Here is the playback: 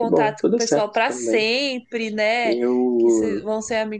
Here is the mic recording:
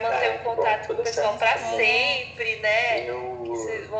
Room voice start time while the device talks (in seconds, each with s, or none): 1.2 s